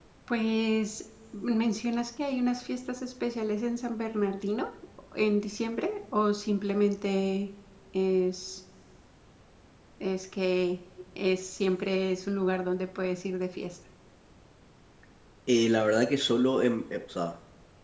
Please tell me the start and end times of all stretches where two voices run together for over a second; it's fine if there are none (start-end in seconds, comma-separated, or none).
none